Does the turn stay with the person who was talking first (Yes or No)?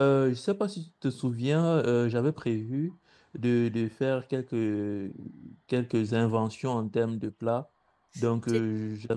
Yes